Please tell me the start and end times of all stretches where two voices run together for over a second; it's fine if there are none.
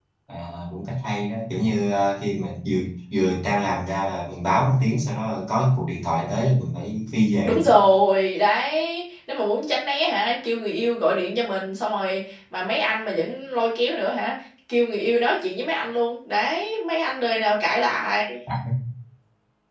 none

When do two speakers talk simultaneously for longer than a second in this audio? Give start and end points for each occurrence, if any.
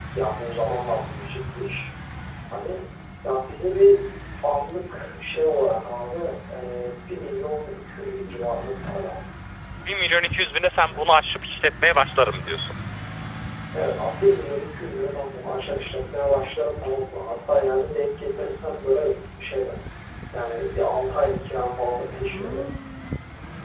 none

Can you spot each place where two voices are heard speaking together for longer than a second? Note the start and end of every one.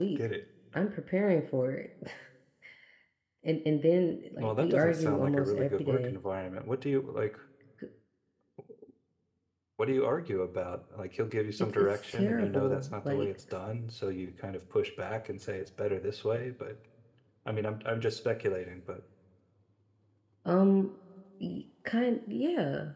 4.4-6.2, 11.6-13.3

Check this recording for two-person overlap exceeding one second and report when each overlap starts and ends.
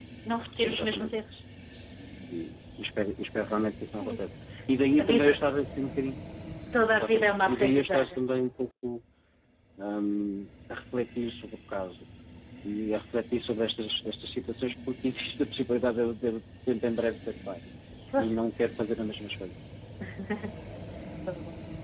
6.9-8.2

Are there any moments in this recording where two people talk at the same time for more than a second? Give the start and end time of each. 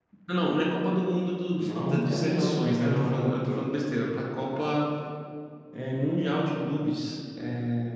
1.6-3.8

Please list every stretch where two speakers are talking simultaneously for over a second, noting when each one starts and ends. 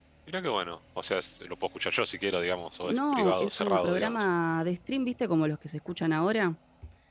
2.8-4.2

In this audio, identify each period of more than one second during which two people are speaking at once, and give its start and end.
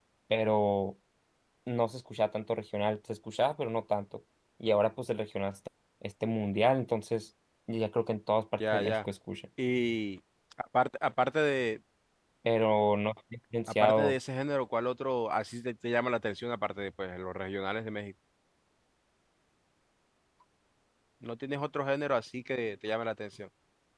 none

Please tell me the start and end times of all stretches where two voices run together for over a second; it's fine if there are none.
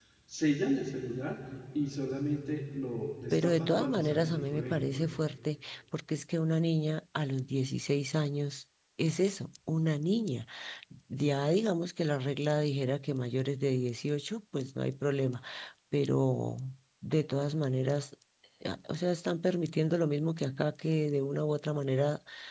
3.3-5.2

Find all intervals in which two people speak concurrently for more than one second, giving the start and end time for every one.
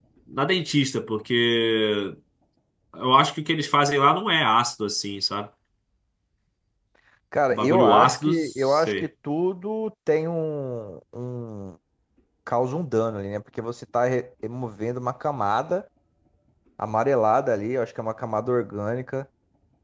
7.5-9.1

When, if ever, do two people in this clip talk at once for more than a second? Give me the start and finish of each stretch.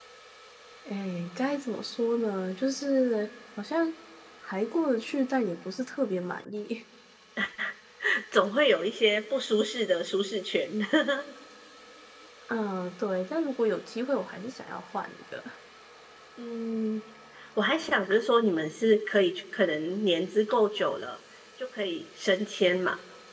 none

